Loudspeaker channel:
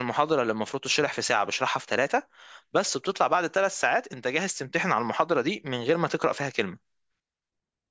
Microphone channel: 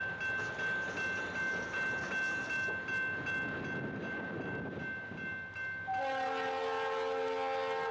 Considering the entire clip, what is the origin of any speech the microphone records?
neither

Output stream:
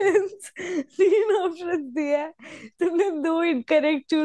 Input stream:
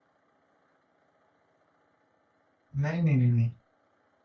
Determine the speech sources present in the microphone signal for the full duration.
user only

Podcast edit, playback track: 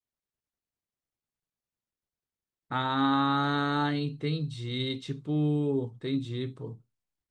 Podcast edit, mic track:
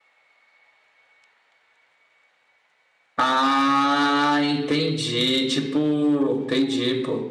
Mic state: echo only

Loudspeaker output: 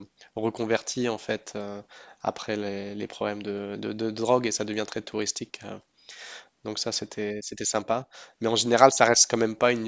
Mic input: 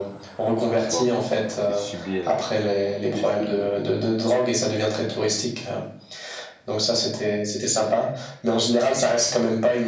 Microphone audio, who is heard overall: both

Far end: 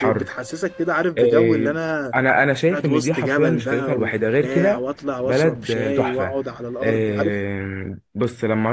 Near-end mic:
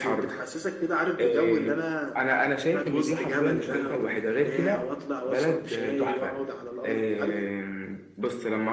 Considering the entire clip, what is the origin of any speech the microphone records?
echo only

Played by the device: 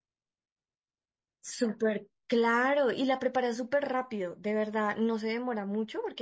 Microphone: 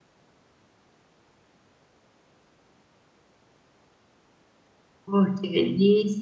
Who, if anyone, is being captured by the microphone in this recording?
user only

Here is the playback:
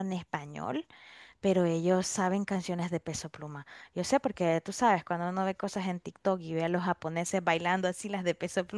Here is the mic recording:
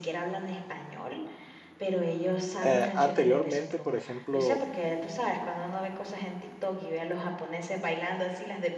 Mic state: both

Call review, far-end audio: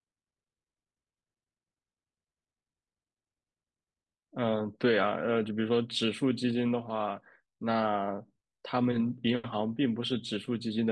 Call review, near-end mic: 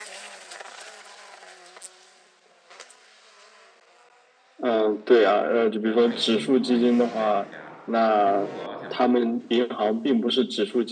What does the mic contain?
both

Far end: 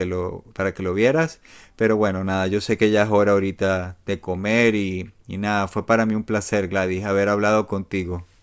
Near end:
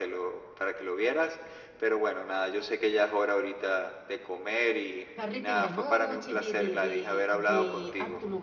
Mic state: both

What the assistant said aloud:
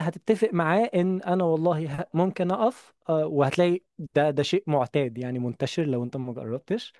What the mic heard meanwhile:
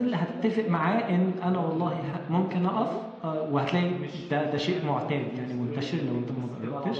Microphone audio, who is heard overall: both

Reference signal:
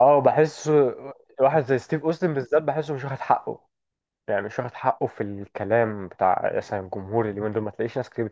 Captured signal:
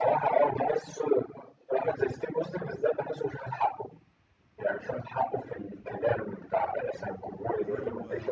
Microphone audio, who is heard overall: both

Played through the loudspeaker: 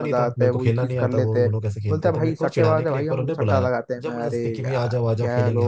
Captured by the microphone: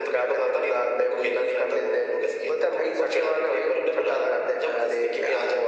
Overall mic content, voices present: echo only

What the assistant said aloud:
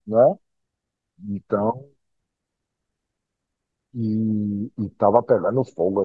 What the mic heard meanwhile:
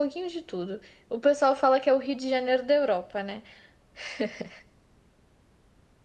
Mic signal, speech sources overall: user only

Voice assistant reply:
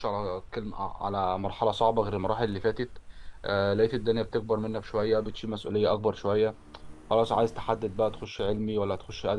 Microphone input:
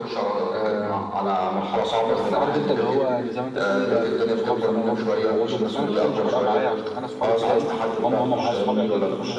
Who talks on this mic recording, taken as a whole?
both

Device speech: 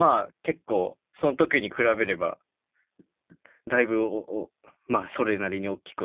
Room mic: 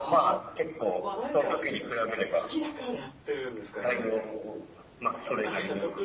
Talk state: both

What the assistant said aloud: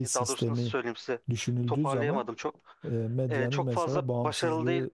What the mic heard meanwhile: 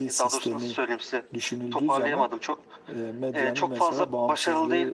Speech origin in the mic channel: echo only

